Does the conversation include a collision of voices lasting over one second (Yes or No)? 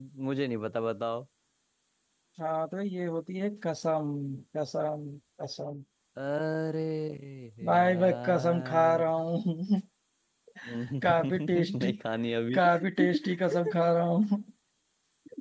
Yes